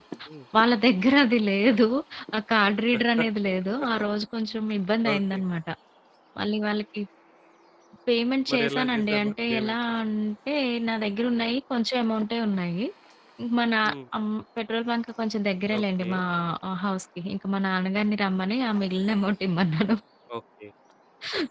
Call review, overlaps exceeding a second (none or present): present